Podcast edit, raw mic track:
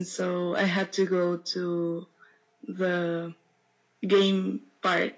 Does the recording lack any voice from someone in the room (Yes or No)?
Yes